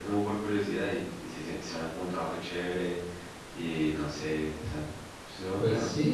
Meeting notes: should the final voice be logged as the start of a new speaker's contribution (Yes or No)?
Yes